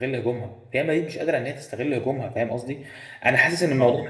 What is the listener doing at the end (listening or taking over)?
listening